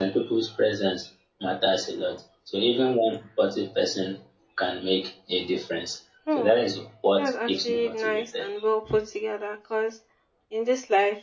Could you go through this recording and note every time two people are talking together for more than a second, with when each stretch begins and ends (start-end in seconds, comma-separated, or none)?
7.2-8.5